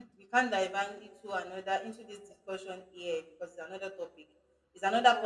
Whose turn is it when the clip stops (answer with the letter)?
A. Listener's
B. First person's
B